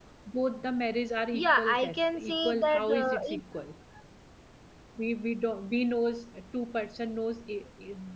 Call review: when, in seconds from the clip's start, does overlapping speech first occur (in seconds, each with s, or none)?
1.3 s